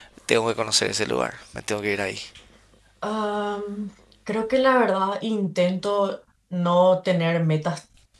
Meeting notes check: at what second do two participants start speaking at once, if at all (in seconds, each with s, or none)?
none